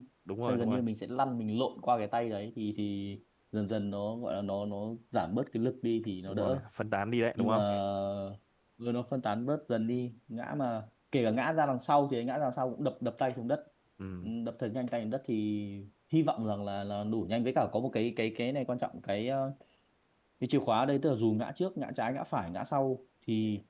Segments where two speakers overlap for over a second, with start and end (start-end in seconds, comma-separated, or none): none